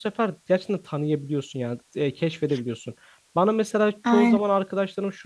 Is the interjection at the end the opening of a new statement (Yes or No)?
No